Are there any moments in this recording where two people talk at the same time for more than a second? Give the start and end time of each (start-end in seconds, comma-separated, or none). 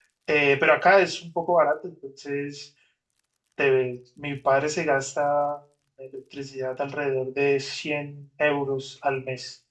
none